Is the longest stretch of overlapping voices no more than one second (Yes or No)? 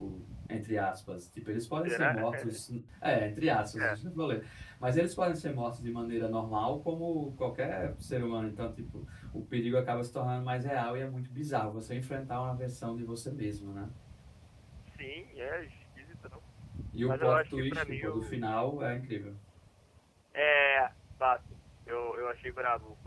No